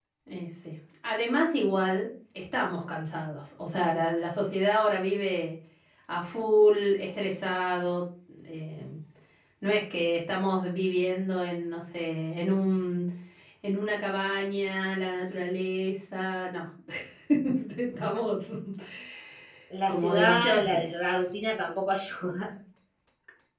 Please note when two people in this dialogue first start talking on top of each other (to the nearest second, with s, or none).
20 s